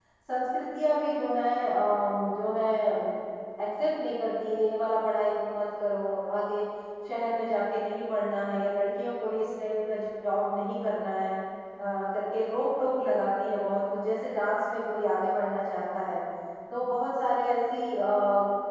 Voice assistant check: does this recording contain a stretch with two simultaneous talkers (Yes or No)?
No